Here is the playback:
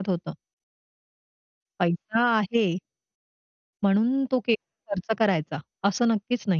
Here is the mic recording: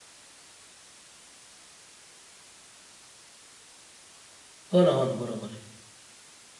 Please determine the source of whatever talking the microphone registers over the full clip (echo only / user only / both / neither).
user only